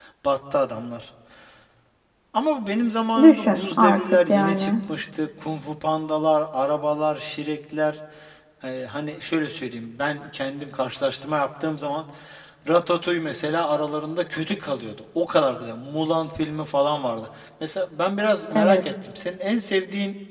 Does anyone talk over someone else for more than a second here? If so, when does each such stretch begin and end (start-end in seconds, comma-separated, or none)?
3.2-4.7